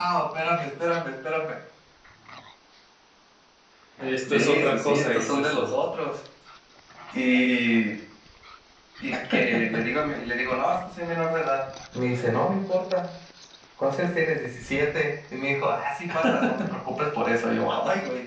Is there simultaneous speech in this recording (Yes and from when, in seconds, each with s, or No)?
Yes, from 4.3 s